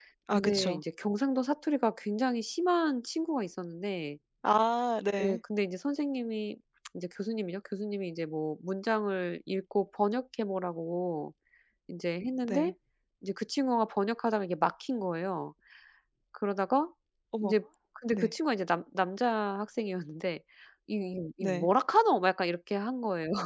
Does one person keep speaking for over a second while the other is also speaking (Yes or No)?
No